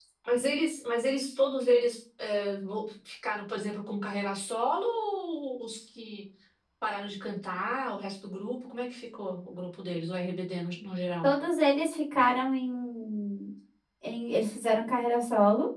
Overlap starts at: none

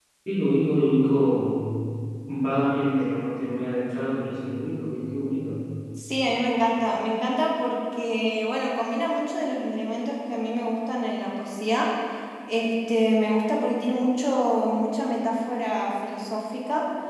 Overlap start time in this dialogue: none

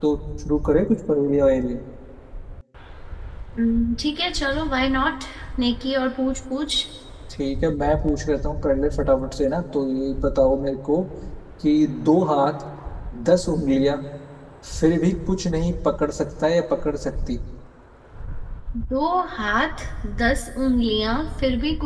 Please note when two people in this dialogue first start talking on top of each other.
none

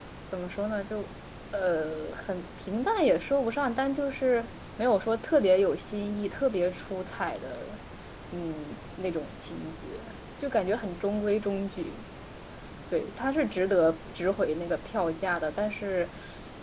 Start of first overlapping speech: none

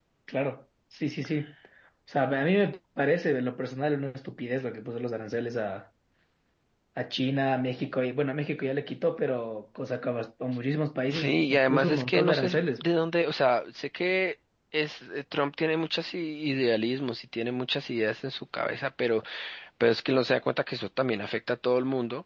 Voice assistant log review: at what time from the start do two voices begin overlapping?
11.1 s

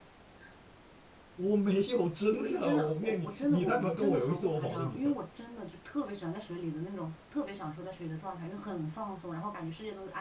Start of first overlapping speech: 2.3 s

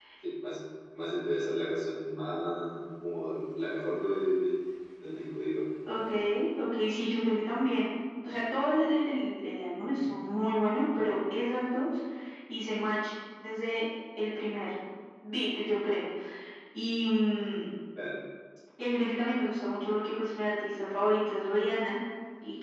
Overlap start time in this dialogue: none

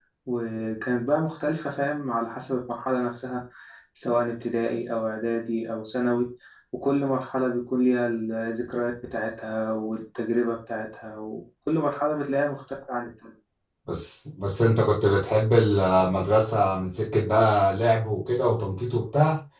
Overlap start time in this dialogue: none

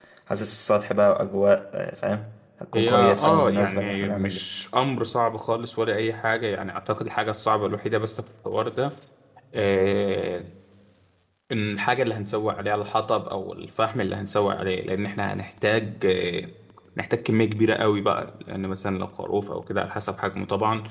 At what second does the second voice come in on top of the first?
2.7 s

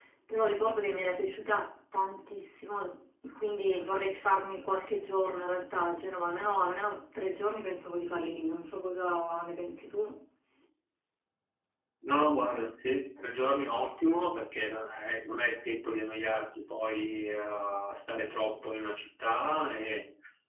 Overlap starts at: none

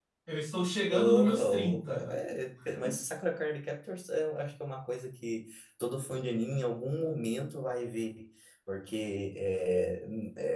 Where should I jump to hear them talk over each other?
0.9 s

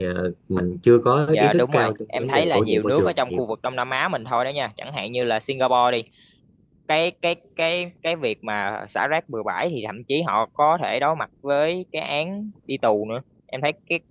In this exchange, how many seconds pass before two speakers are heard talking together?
1.3 s

